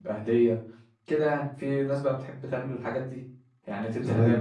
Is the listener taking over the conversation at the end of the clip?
Yes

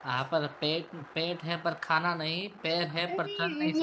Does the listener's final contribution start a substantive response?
Yes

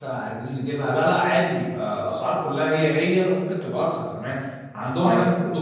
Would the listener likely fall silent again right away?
Yes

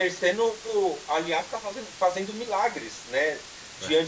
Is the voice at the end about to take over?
No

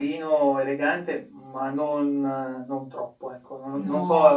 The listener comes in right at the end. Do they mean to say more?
No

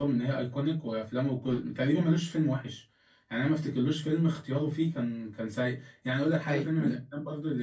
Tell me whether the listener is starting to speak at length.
No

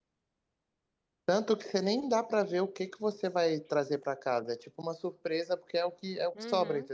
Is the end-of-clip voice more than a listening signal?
Yes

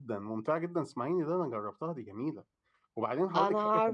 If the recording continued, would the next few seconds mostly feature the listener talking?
No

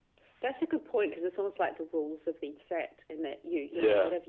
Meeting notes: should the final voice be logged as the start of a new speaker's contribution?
No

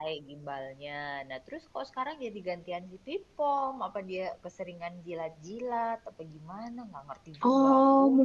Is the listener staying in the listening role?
No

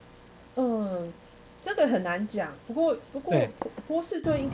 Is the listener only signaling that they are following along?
Yes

